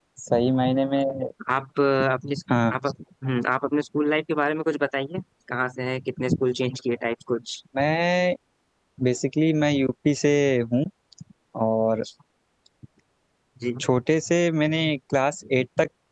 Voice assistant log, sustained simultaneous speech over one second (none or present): none